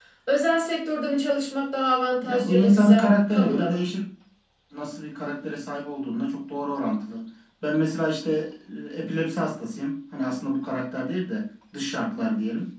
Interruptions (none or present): present